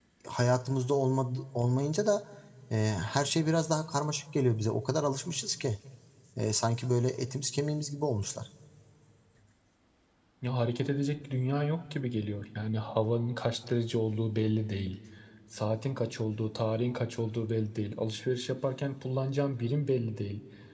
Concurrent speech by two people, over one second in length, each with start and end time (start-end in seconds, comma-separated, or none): none